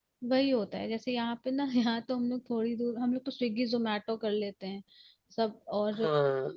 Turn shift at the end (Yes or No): No